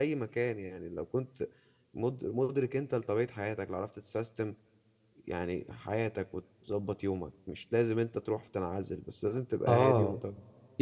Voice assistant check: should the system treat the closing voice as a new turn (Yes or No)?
Yes